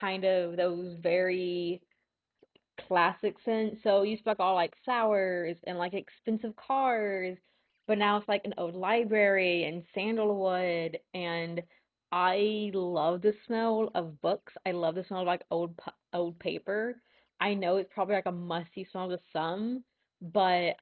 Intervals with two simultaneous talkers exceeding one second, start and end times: none

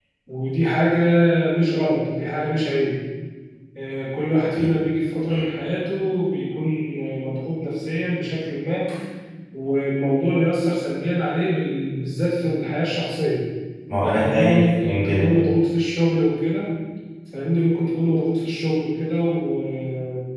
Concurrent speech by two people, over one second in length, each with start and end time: 14.0-15.4

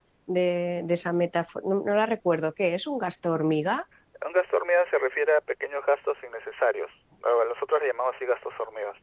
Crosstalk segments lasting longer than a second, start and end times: none

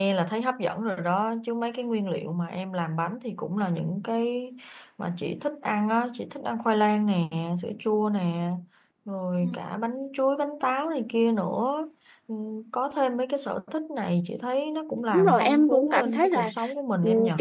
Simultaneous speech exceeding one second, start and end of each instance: 15.1-16.5

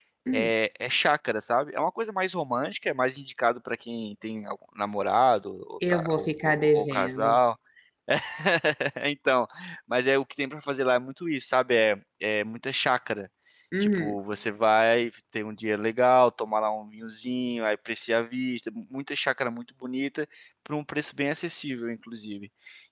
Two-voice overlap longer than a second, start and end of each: 5.9-7.4

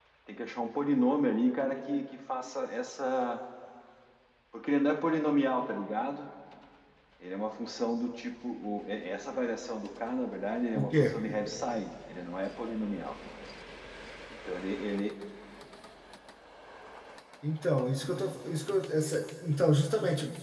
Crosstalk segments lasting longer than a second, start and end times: none

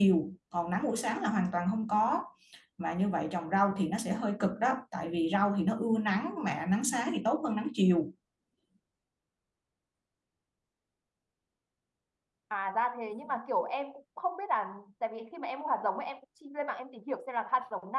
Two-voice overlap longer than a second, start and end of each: none

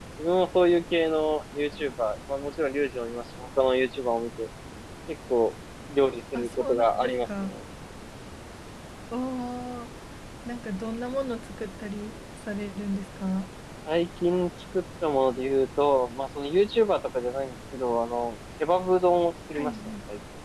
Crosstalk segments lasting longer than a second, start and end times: 6.3-7.6

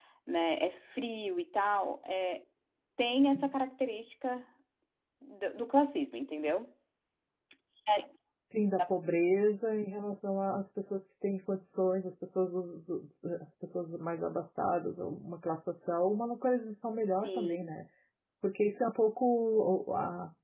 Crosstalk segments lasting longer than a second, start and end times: none

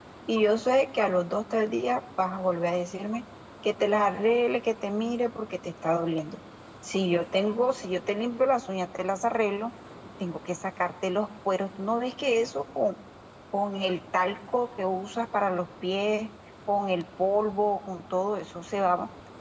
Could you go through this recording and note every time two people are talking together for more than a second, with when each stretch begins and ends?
none

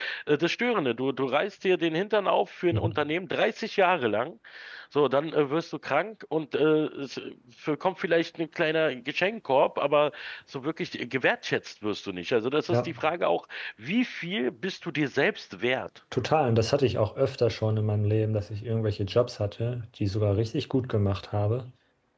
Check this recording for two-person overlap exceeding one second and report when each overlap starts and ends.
none

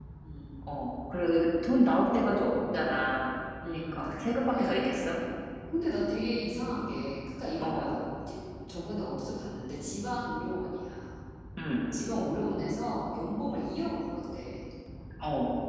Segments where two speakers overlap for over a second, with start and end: none

